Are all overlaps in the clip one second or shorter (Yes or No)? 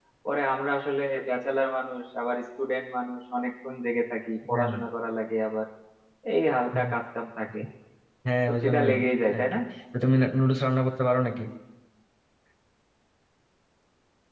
Yes